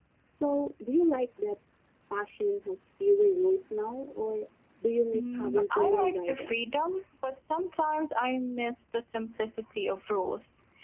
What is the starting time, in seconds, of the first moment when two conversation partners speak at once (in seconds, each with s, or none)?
5.1 s